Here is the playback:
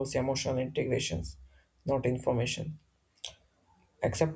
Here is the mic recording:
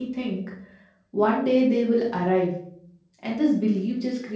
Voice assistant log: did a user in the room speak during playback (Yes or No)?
Yes